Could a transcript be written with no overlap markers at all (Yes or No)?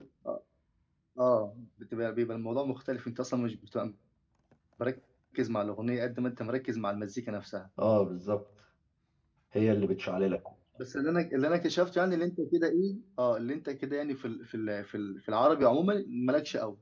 Yes